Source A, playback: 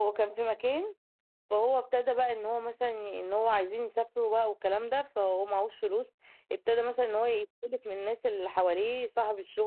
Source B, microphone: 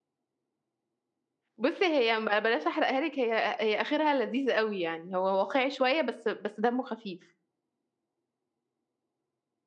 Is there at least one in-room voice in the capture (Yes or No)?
Yes